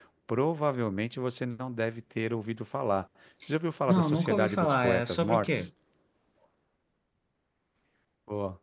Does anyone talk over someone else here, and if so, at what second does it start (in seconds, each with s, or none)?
3.9 s